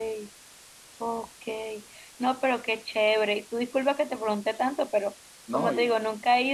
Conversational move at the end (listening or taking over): listening